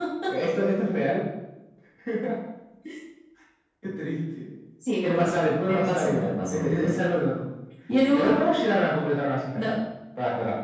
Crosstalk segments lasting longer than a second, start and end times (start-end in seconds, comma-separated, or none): 5.0-7.0